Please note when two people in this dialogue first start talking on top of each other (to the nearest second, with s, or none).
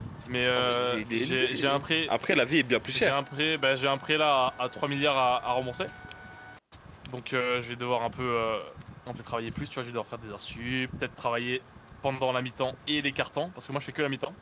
1 s